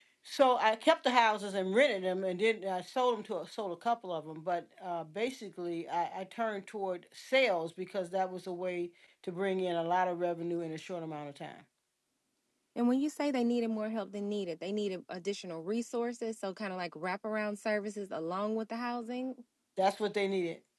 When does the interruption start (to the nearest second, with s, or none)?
none